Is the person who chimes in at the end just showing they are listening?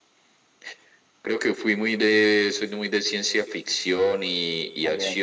Yes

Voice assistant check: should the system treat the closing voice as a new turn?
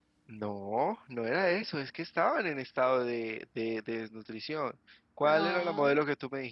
No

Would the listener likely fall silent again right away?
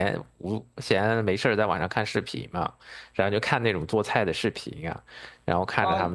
No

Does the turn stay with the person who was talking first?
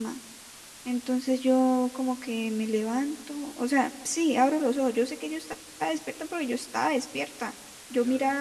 Yes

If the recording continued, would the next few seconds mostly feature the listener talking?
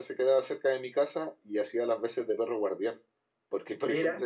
No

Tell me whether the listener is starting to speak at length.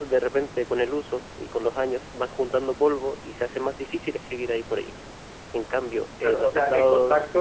Yes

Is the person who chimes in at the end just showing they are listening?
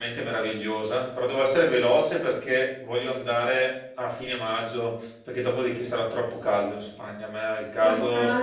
No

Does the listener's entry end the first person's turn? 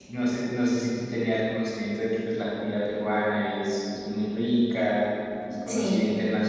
No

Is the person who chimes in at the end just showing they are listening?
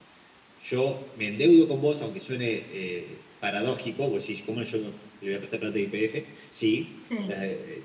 Yes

